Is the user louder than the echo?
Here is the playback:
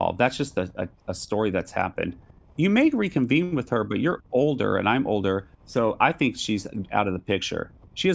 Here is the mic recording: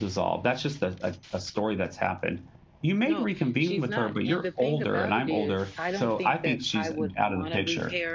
No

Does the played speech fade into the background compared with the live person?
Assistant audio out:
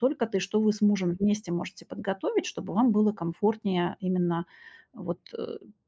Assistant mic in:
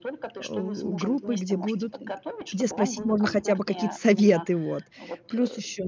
Yes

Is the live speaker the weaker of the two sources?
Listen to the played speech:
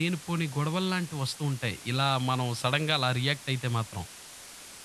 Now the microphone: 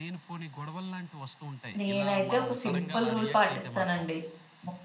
No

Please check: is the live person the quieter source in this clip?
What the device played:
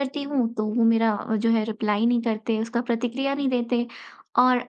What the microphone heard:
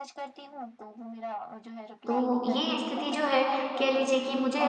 No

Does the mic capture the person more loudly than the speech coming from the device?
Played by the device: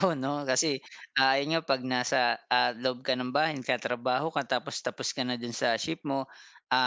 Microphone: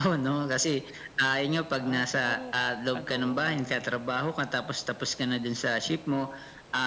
No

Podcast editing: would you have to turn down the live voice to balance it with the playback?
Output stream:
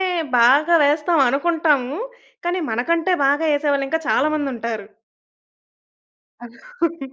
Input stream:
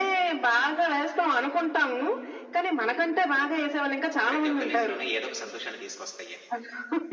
No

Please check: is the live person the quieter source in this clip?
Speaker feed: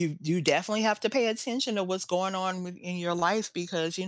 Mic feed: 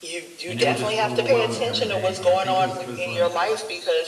Yes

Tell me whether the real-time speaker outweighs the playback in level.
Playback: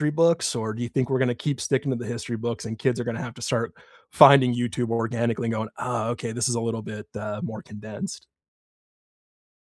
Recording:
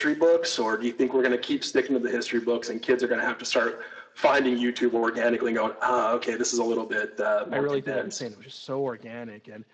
No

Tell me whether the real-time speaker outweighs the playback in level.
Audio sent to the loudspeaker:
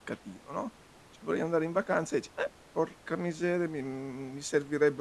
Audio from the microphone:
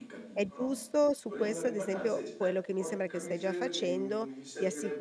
Yes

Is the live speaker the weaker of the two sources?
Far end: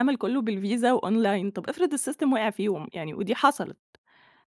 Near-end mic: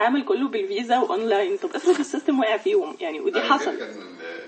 Yes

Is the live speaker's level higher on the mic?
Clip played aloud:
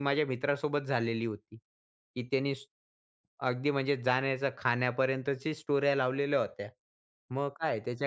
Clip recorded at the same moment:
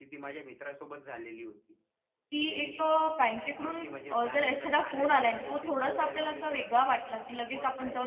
Yes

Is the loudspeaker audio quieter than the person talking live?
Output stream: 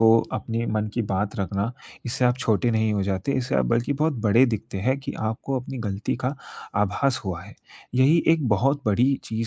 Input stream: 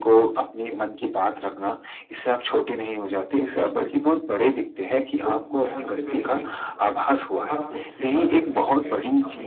No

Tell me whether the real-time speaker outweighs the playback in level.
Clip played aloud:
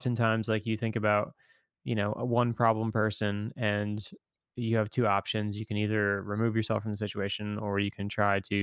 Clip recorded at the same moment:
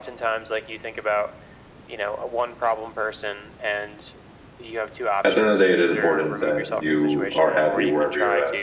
Yes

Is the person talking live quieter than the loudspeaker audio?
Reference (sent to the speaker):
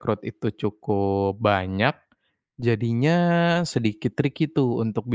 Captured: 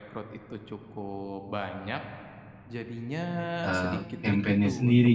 No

